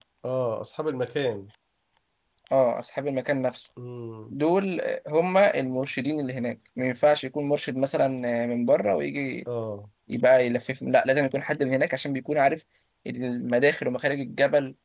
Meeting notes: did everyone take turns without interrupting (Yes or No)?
Yes